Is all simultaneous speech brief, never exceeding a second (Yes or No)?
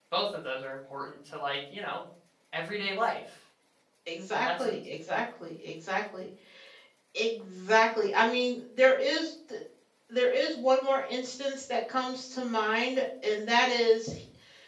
Yes